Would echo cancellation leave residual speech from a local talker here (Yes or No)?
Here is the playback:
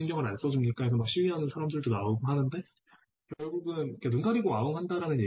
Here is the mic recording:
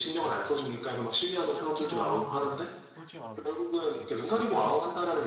Yes